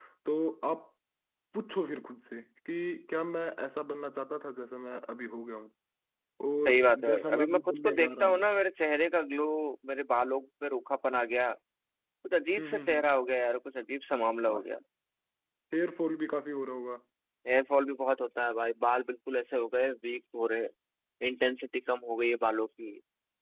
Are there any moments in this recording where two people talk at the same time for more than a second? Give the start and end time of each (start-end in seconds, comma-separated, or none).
6.6-8.4